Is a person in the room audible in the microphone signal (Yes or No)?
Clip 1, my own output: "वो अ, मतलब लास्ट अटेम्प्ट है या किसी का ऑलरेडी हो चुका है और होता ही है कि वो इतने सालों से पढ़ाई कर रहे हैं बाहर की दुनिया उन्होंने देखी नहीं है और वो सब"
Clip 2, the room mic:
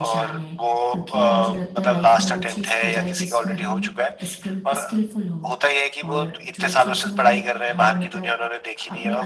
Yes